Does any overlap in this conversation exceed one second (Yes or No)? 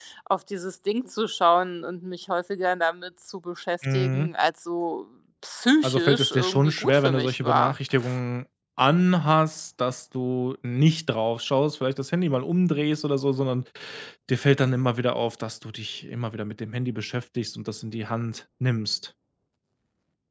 Yes